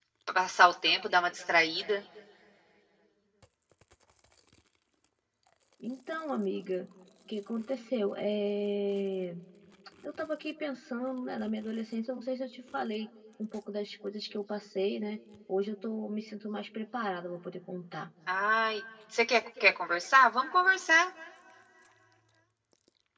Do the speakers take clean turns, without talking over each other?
Yes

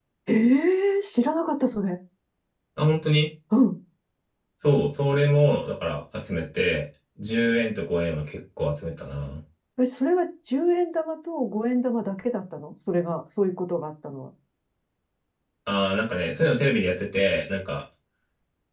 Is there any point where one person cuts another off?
No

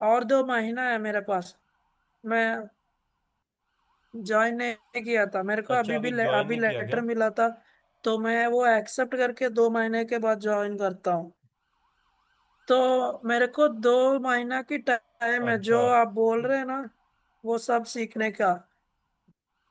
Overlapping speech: Yes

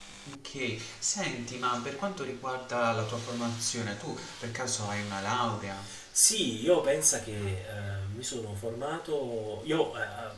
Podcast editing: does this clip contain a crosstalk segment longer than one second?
No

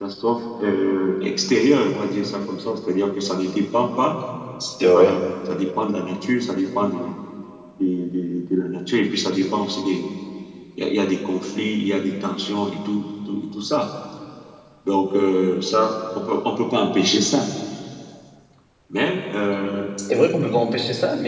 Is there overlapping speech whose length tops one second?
No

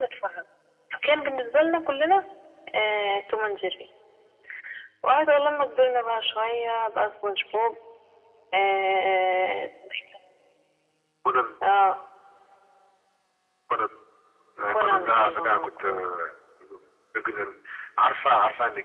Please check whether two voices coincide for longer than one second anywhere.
Yes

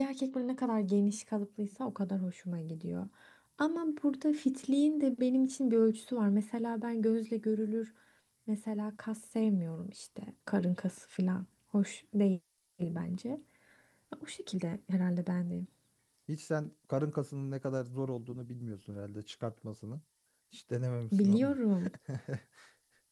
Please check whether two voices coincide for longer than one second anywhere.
No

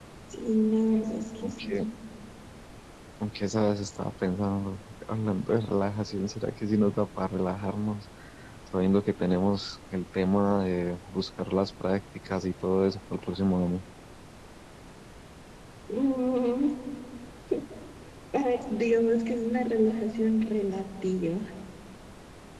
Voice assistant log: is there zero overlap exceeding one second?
Yes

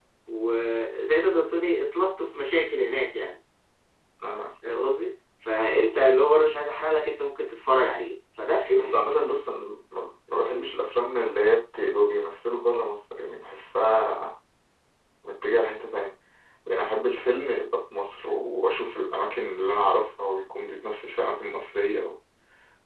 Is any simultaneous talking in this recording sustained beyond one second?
No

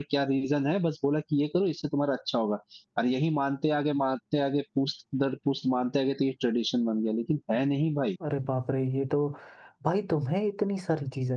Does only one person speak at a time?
Yes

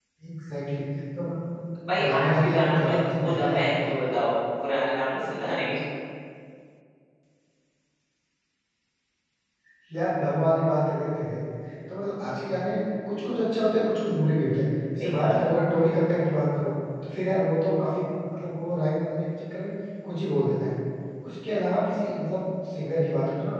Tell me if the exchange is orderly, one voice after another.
No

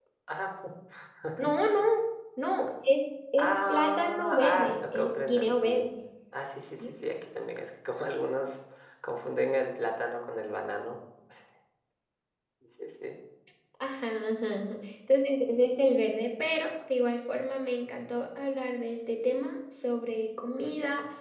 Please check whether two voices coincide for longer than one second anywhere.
Yes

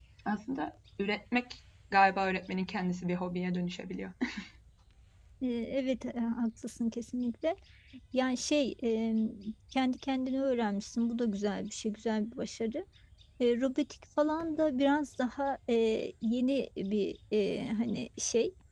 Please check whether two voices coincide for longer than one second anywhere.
No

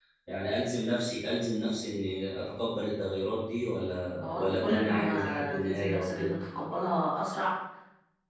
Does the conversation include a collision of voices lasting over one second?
Yes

